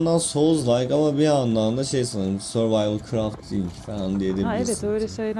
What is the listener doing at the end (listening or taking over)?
taking over